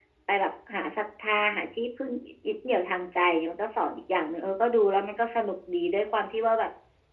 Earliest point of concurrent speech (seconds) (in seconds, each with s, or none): none